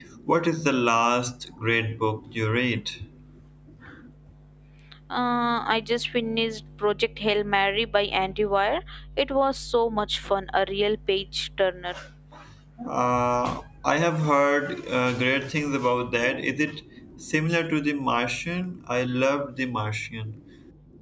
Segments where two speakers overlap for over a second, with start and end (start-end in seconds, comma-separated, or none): none